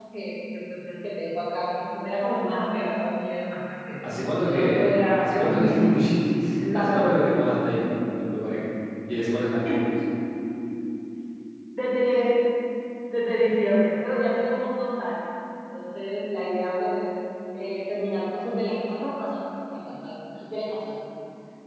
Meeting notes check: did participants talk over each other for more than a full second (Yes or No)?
Yes